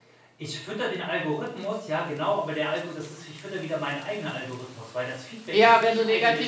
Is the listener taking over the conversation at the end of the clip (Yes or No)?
Yes